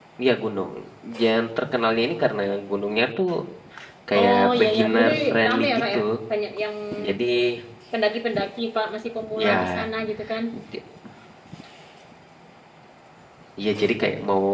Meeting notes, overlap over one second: present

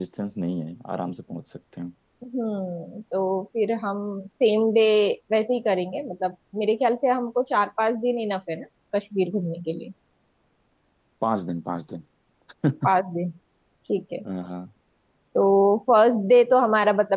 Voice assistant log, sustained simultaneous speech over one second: none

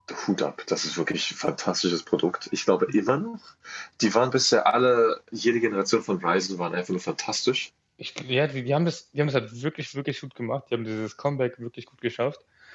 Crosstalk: none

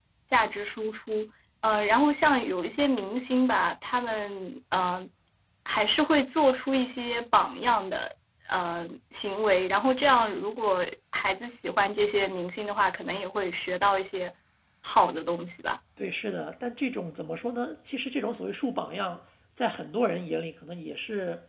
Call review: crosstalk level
none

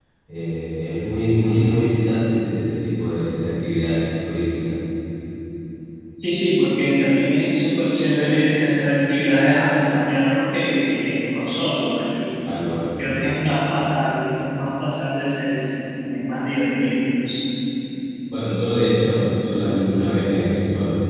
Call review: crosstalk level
none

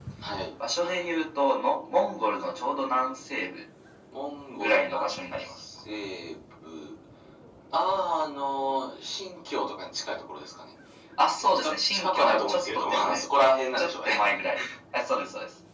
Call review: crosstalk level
present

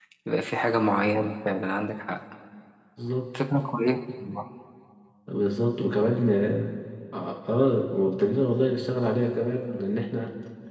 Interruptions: none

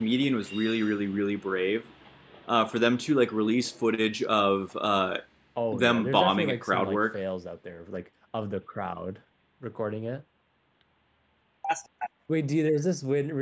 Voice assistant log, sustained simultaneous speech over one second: present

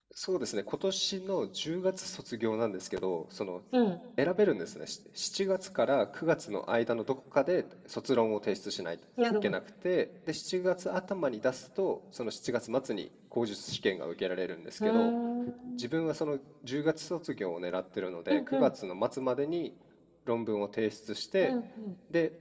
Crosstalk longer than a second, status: none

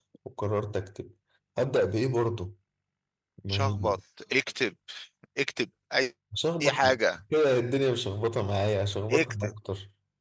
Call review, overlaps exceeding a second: none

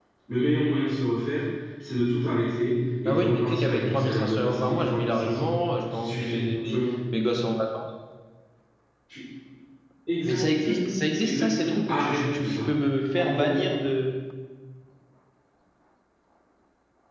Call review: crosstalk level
present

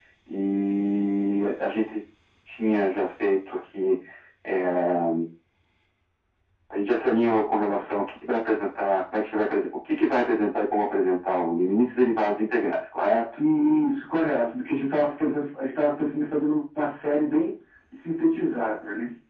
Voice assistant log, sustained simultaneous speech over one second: none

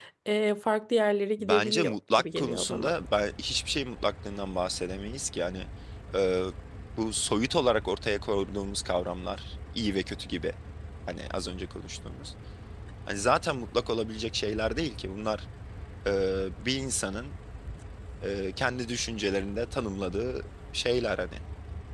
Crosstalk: present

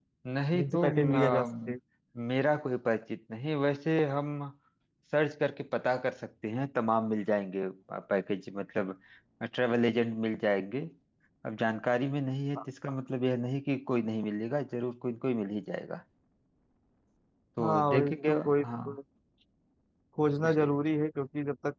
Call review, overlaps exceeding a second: present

